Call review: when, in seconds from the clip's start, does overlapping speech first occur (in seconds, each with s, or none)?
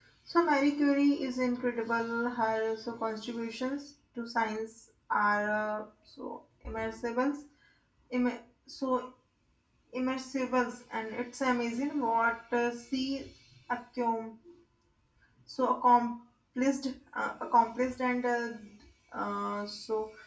none